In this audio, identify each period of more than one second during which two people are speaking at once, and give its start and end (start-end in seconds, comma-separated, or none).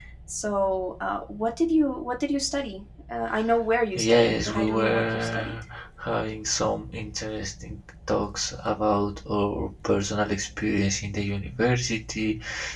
4.1-5.5